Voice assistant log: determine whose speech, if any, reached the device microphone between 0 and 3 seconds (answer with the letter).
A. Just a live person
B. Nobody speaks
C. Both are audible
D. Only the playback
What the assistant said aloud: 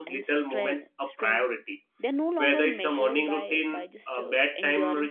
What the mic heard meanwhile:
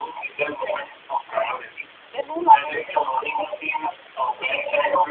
D